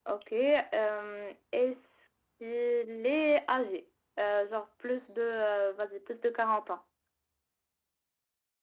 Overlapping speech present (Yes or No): No